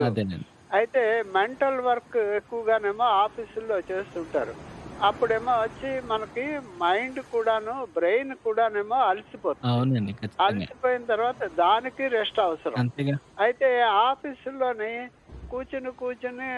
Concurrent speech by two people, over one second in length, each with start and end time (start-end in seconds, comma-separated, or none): none